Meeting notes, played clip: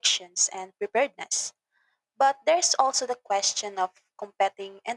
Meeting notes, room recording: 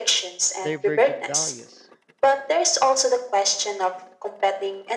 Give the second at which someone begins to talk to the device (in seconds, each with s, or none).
0.6 s